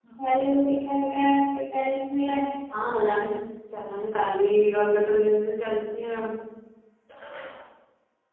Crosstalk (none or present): none